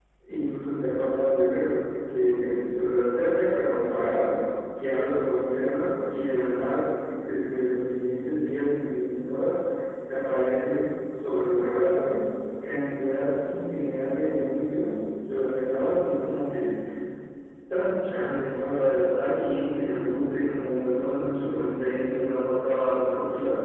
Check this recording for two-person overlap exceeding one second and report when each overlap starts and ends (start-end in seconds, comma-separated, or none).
none